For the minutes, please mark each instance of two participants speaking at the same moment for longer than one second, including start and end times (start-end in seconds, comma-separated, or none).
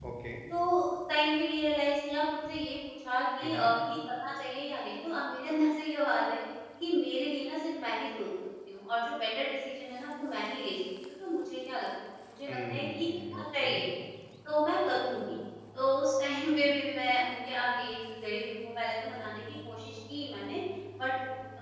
12.5-13.8